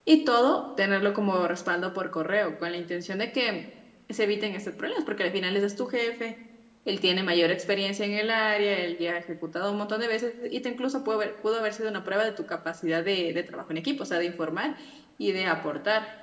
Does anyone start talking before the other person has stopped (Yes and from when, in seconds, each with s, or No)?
No